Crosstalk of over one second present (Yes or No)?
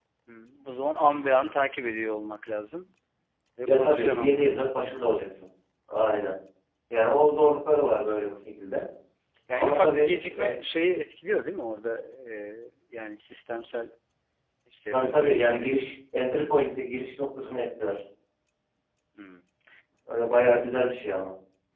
Yes